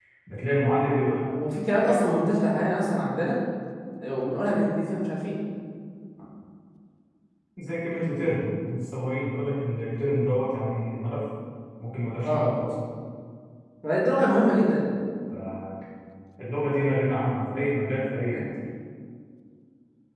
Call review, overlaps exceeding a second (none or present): none